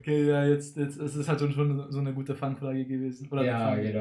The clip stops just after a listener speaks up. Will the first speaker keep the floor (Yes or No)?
No